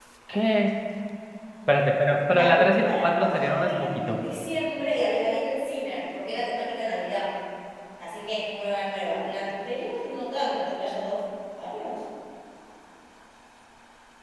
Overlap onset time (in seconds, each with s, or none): 2.3 s